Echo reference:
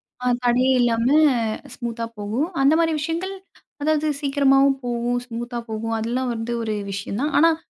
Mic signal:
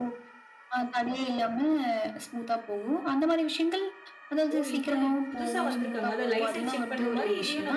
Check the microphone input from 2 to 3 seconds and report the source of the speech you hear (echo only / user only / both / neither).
echo only